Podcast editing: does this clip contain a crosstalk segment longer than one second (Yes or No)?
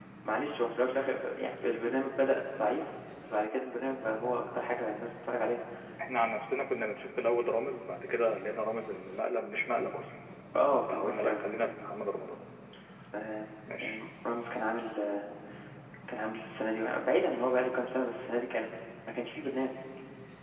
No